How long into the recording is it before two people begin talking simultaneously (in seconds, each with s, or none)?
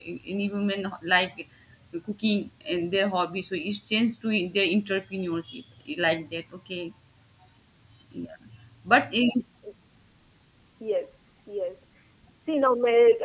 none